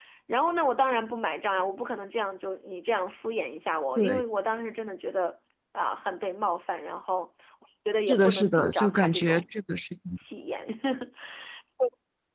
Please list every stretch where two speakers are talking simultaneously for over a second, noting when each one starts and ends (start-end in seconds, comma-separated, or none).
8.1-9.4